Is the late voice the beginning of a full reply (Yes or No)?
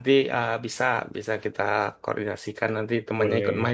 No